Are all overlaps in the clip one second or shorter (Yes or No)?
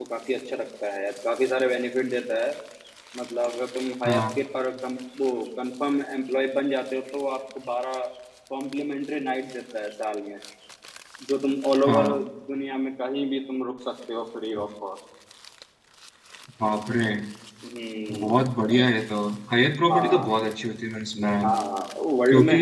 Yes